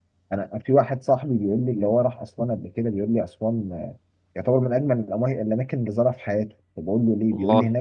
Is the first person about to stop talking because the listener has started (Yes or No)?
No